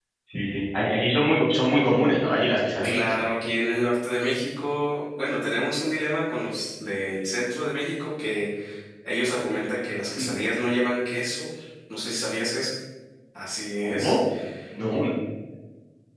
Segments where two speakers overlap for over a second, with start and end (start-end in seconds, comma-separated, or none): none